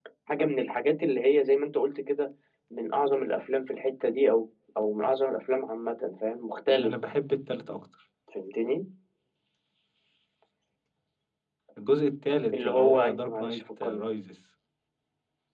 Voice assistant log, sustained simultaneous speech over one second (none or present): present